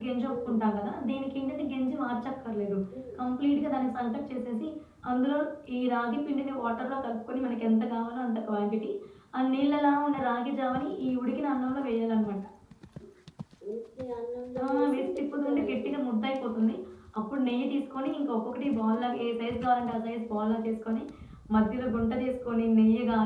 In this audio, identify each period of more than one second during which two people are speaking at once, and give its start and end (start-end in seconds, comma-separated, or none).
14.6-15.9